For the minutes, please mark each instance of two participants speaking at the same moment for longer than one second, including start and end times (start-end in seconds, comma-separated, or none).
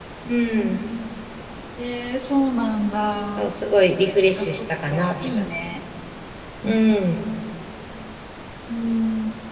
4.4-5.7